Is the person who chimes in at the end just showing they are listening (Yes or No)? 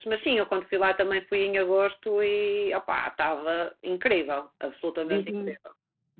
No